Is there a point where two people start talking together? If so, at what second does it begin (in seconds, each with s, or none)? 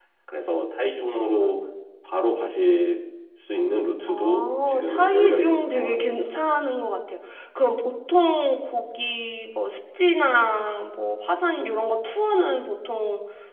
4.1 s